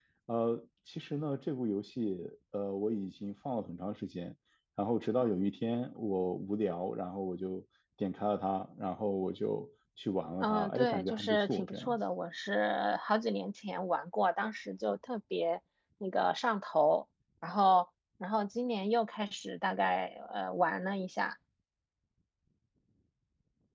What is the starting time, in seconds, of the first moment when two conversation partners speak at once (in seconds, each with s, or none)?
10.4 s